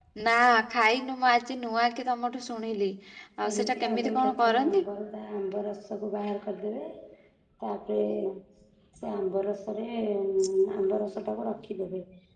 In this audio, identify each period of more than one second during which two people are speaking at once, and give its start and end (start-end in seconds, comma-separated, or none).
3.5-4.8